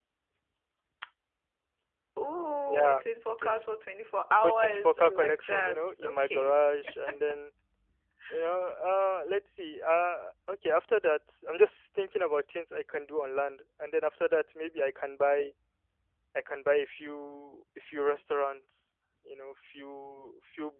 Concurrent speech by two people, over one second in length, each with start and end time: 4.4-6.5

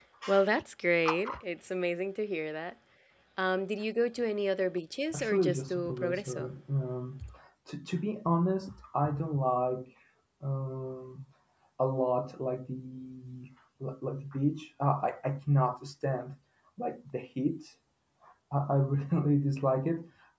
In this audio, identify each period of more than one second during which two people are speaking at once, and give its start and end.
5.2-6.5

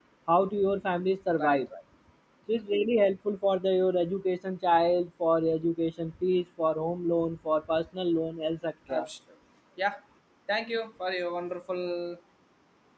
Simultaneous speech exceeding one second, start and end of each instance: none

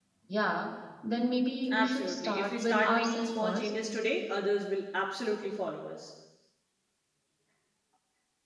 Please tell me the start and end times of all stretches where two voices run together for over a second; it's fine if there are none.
1.7-3.7

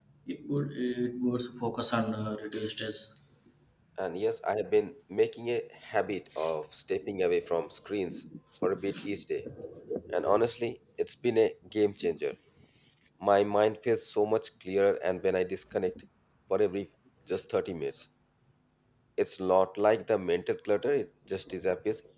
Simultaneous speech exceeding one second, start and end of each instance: none

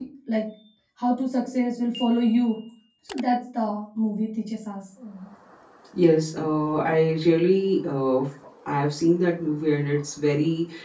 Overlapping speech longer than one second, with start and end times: none

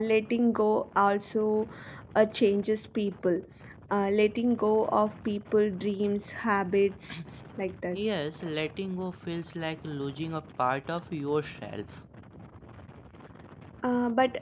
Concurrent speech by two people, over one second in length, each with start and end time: none

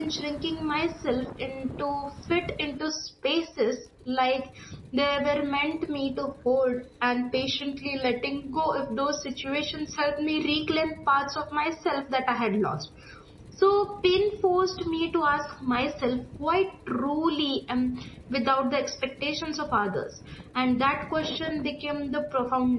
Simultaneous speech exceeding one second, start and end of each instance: none

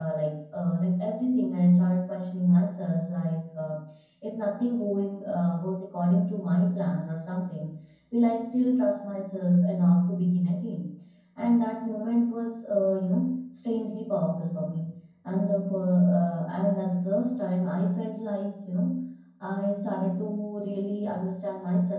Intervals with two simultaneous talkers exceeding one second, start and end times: none

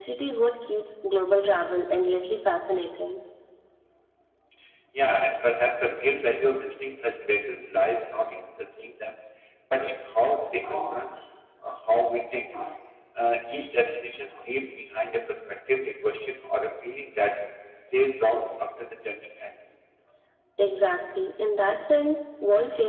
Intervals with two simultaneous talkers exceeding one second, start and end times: none

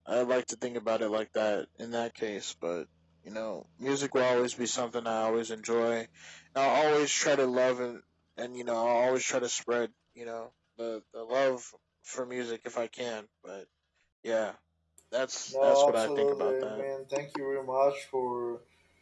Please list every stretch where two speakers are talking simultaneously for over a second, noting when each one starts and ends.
15.5-16.8

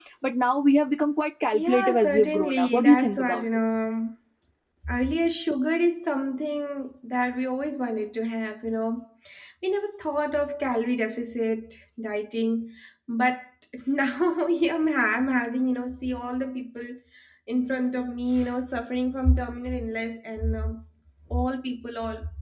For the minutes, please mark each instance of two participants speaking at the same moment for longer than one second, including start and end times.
1.5-3.4

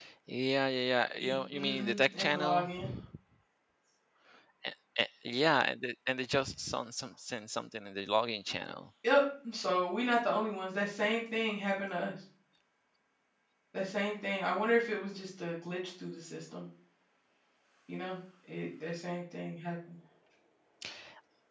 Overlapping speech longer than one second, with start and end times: 1.2-2.7

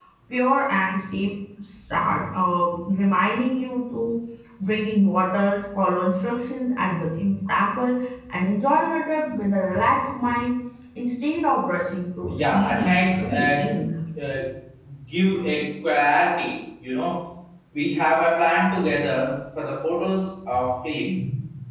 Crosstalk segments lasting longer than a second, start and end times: 12.3-13.6

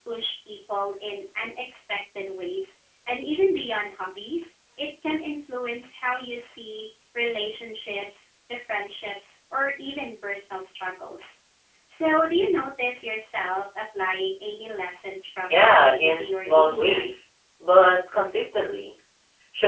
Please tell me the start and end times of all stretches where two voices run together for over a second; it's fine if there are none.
15.5-17.1

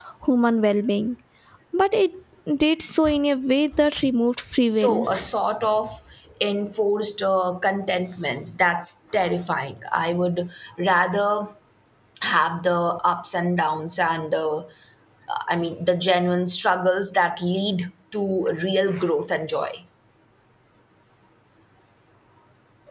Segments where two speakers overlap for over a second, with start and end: none

